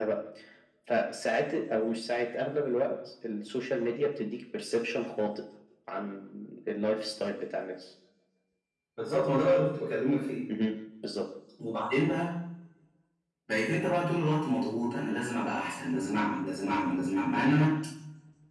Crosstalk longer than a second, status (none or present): none